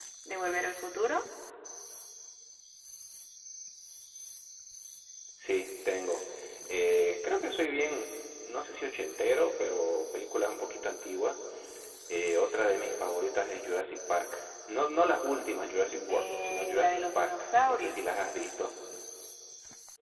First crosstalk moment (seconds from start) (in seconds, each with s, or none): 15.9 s